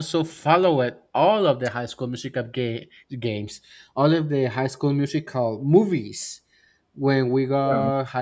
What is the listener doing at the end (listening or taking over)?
listening